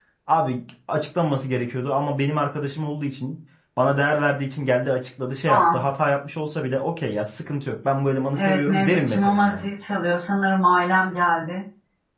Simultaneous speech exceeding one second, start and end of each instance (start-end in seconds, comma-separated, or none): 8.3-9.7